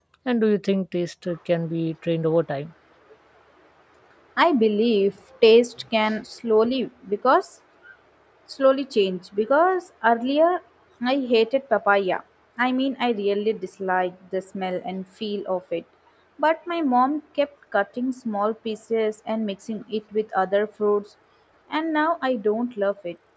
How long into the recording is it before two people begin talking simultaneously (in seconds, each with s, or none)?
none